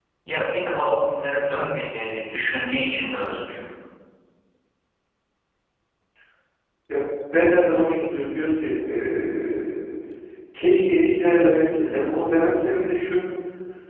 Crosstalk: none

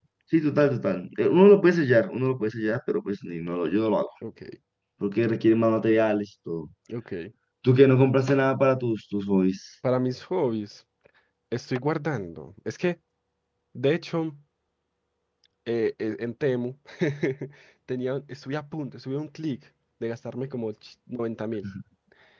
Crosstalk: none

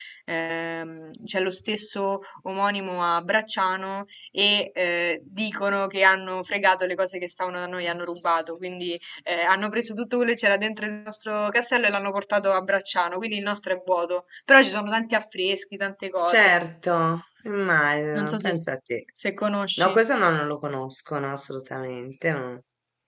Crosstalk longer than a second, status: none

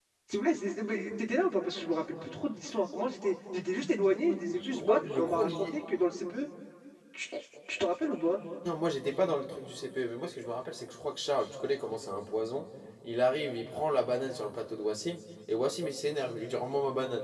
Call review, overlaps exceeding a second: present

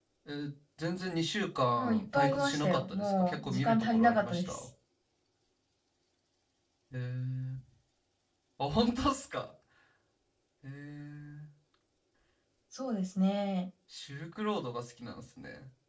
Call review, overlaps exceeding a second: present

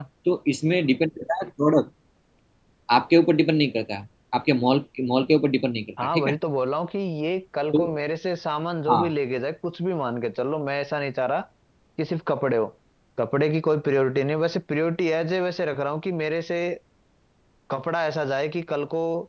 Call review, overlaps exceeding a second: none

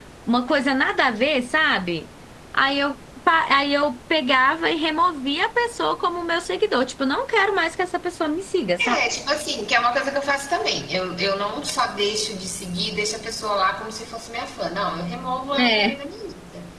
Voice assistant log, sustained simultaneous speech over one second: none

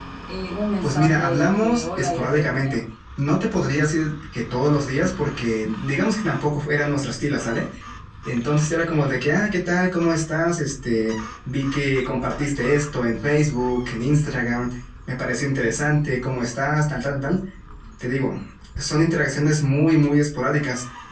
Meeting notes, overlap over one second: present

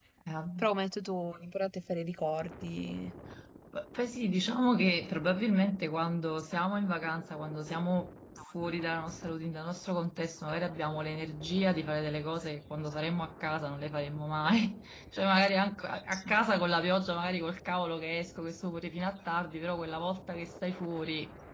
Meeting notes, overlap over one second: none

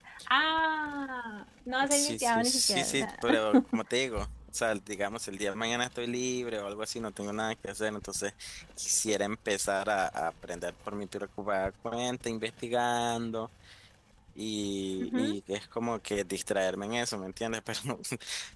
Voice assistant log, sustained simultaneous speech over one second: present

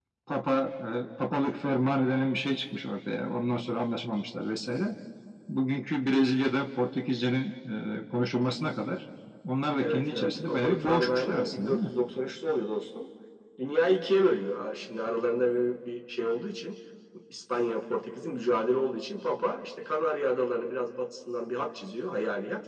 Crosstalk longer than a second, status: present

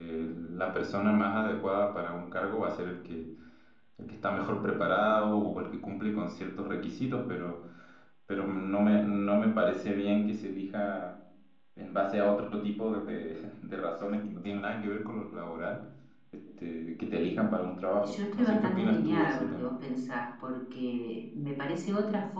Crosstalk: present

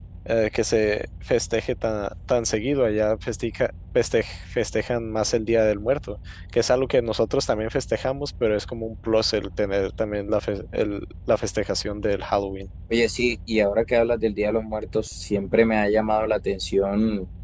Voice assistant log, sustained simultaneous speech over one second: none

